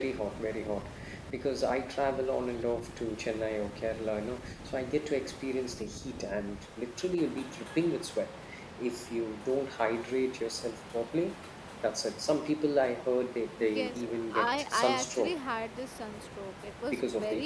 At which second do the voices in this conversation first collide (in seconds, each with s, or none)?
13.6 s